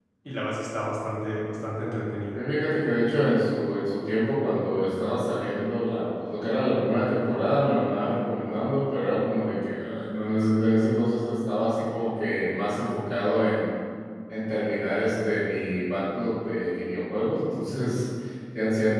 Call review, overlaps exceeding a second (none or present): none